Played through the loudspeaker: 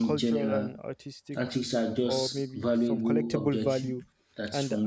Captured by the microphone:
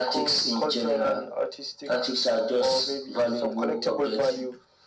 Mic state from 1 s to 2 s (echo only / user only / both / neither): echo only